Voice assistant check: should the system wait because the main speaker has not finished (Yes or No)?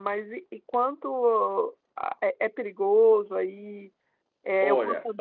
No